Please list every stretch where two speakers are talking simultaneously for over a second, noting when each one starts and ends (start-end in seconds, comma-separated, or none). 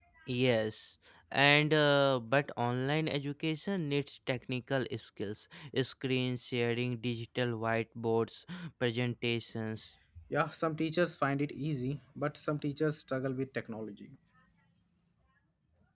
none